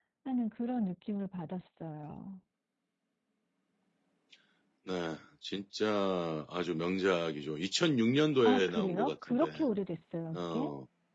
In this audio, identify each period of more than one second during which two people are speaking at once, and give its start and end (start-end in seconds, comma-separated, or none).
8.4-9.7